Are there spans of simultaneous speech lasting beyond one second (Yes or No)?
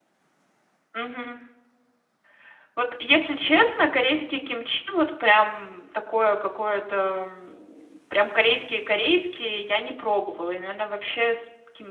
No